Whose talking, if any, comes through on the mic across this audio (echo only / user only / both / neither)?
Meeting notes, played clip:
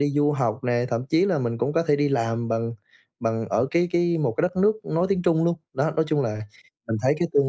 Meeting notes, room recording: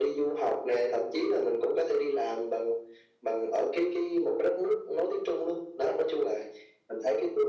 echo only